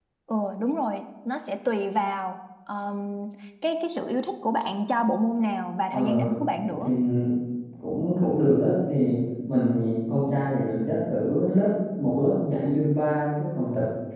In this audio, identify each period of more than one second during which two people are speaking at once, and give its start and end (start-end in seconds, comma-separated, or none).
none